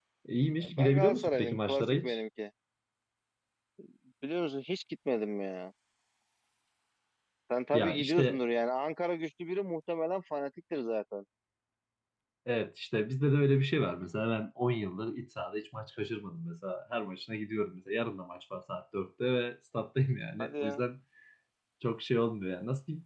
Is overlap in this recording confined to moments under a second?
No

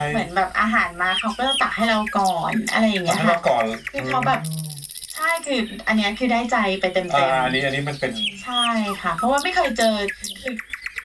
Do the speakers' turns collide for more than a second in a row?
No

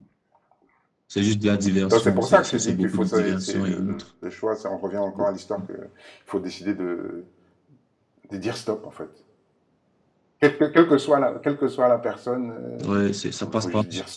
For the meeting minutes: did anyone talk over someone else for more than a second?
Yes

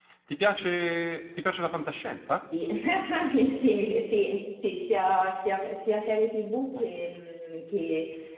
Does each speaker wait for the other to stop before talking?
Yes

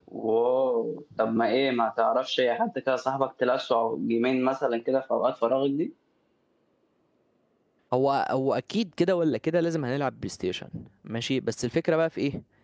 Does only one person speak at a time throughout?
Yes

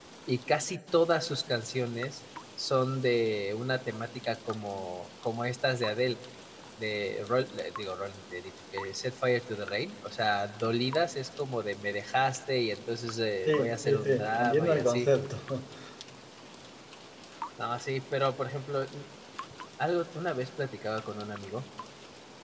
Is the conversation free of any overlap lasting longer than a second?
No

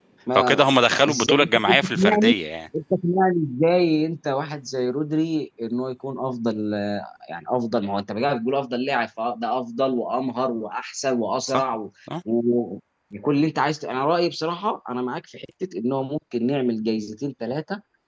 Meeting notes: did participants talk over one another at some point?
Yes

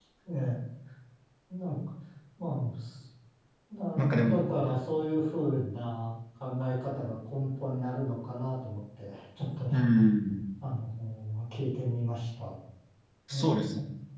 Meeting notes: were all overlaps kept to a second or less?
Yes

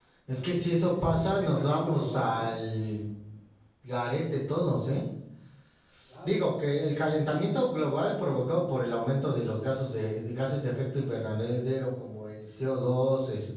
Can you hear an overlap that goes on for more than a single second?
Yes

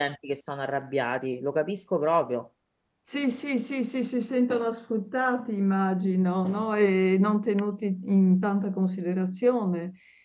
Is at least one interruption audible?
No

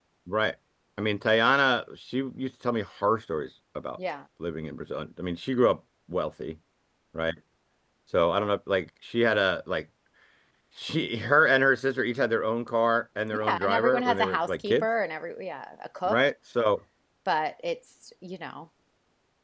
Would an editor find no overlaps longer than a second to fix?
No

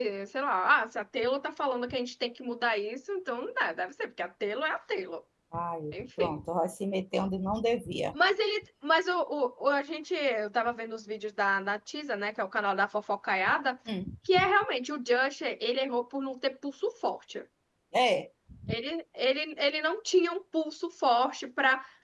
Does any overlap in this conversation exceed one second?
No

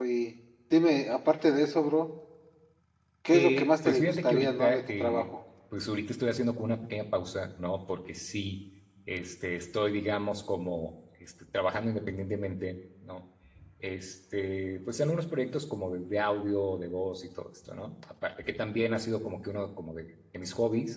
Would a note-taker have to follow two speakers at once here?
Yes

